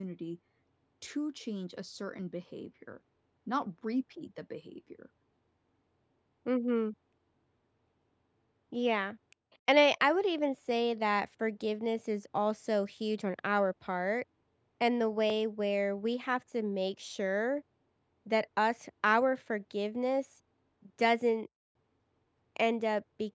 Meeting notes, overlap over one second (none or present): none